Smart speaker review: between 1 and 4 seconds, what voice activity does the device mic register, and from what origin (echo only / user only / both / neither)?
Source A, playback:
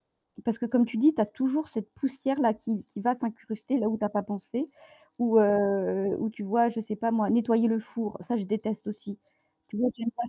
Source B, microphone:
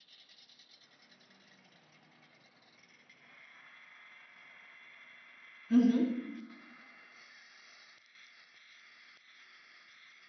neither